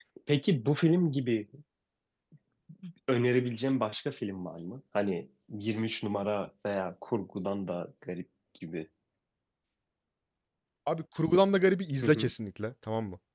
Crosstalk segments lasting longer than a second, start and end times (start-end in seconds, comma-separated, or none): none